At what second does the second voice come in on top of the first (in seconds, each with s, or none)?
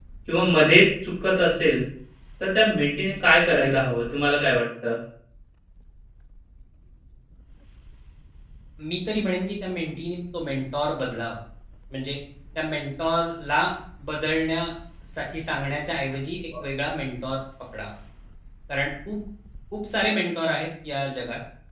none